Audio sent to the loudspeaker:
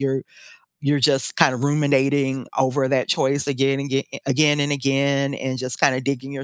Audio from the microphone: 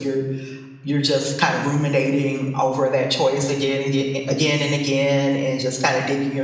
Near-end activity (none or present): none